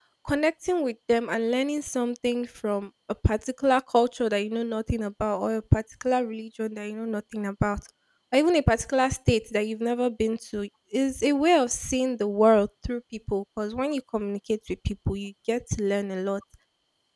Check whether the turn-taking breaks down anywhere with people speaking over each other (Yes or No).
No